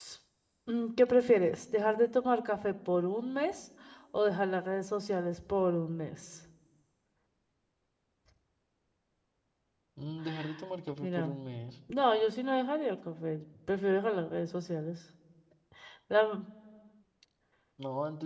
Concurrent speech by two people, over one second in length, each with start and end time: none

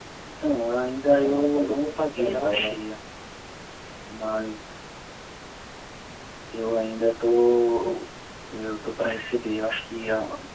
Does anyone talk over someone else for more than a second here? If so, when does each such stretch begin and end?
1.1-2.8

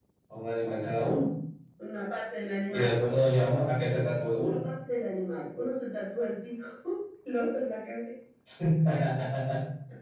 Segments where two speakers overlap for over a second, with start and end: none

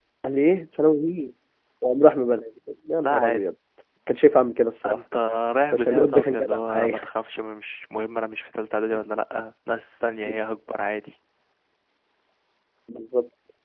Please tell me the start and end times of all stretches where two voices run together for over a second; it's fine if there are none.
5.7-6.9

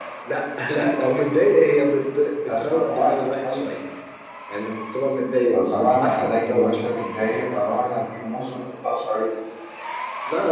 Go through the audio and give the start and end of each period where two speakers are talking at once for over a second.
2.5-3.7, 5.5-7.0

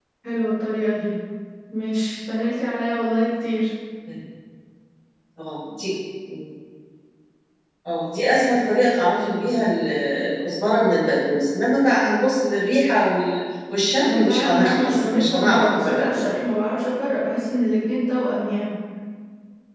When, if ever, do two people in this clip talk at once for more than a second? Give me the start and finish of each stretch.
14.0-16.4

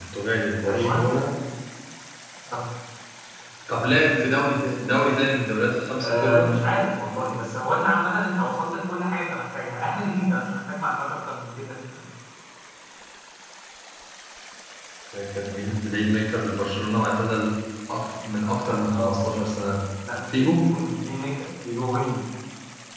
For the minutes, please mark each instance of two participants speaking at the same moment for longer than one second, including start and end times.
none

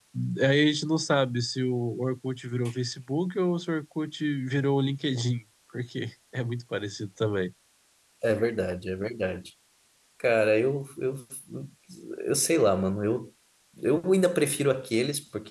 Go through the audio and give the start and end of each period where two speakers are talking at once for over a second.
none

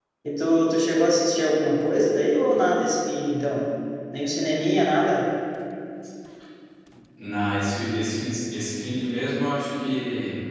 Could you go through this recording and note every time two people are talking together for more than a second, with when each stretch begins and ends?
none

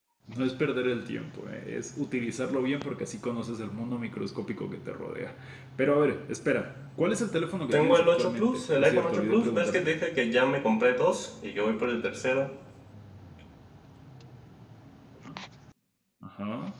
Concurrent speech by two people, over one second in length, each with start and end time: 7.7-9.9

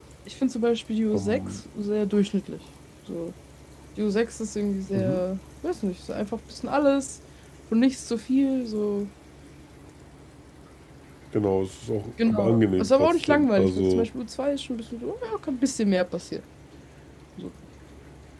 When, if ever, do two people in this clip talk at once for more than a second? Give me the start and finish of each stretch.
12.3-14.1

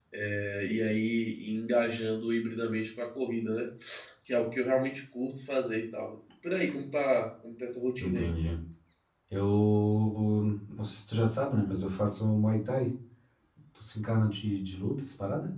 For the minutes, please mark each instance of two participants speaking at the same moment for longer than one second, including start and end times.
none

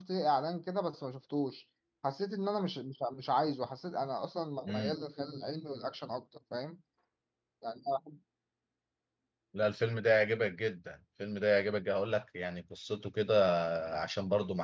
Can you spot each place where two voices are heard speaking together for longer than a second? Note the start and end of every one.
none

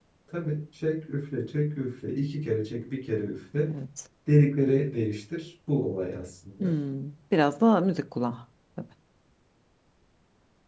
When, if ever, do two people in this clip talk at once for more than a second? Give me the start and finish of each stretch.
none

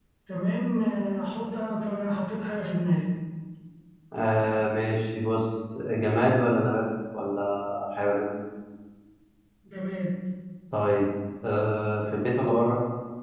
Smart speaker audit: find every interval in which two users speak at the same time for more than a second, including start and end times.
none

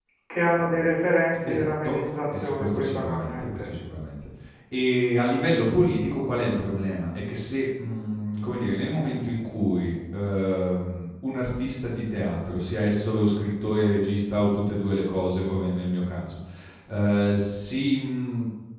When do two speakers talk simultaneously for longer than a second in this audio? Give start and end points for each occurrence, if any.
1.5-3.7

